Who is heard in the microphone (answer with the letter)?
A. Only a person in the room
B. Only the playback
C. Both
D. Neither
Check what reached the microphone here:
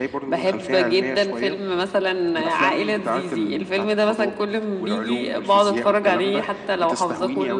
B